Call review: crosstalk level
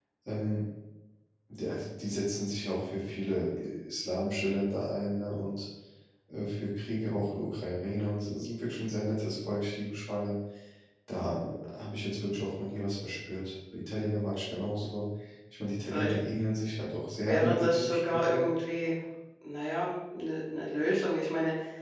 present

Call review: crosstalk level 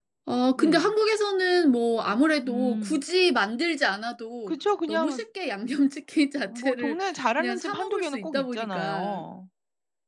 present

